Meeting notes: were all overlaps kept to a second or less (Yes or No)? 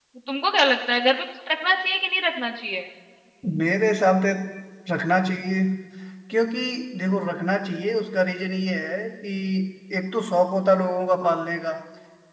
Yes